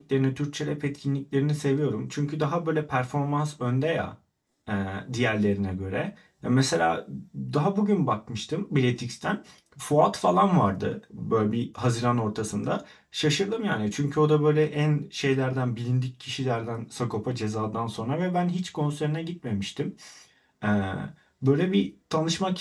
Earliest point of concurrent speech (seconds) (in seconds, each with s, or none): none